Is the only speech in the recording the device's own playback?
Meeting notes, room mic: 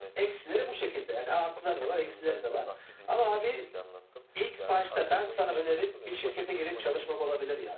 No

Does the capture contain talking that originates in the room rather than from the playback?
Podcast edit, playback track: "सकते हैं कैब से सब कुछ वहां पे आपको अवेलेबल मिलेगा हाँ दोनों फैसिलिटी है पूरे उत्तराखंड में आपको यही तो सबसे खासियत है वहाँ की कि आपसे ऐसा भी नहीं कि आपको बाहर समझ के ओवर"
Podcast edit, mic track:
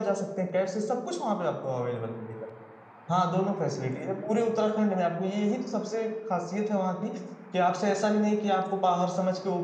No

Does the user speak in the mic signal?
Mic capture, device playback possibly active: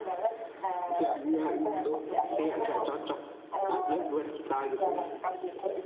Yes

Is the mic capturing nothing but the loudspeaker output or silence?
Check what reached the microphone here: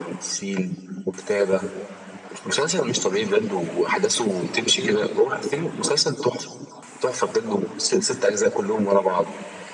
No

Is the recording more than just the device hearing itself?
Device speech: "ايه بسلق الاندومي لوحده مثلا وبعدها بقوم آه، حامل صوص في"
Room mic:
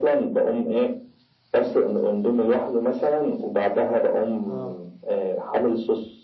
Yes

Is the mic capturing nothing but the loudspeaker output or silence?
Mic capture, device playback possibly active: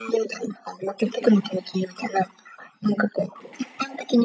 Yes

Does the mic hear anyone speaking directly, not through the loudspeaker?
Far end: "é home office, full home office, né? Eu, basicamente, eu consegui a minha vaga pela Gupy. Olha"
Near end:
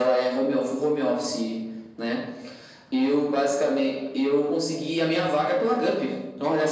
No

